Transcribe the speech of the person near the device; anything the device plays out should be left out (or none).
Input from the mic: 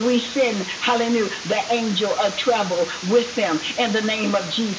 none